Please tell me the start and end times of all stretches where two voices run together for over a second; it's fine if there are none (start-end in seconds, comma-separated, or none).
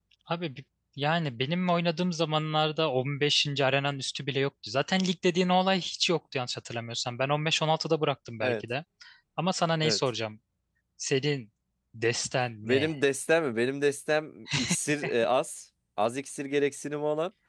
none